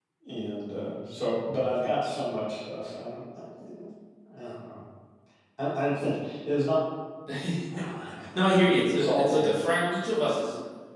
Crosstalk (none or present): present